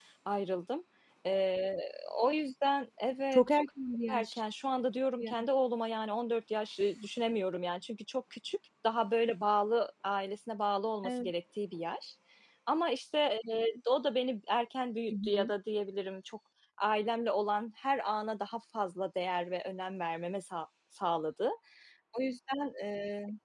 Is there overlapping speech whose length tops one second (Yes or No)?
No